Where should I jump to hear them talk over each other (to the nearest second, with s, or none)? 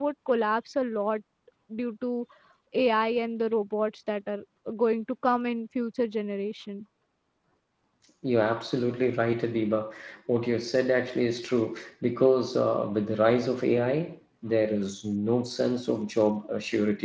none